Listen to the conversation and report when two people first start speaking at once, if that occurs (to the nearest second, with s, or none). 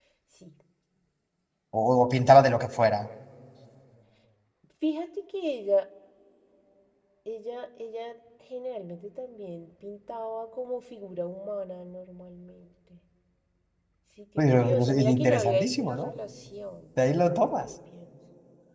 14 s